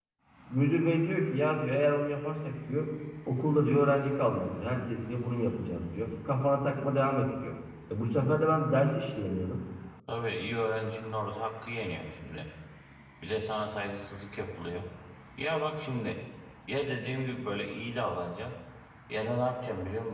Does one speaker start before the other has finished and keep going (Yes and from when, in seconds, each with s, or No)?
No